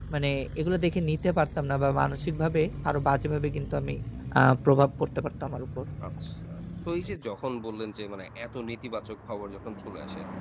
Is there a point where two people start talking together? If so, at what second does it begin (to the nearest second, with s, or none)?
none